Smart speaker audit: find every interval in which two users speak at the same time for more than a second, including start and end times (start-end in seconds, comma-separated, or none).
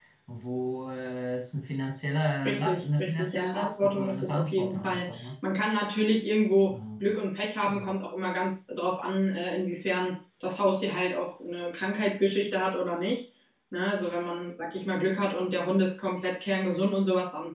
2.5-5.3